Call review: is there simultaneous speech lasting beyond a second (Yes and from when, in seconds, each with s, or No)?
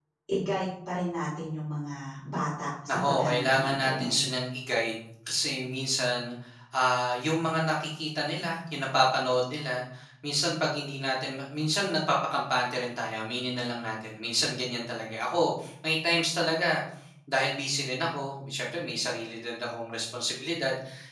Yes, from 2.9 s